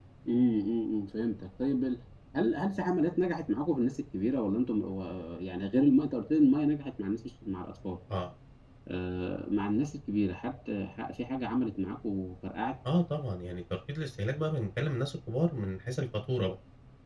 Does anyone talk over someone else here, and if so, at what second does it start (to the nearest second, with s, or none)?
none